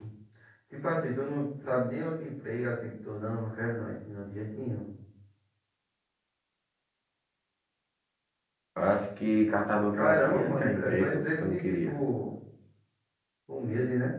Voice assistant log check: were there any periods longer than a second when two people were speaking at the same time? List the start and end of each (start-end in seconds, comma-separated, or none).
9.9-12.0